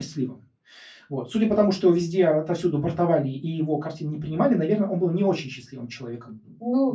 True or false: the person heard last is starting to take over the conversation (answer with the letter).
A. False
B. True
B